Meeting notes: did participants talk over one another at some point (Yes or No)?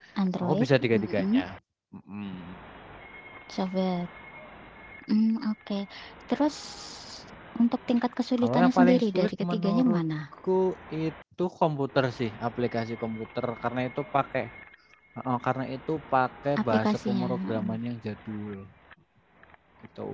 Yes